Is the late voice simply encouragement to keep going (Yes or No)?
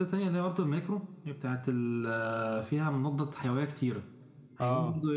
Yes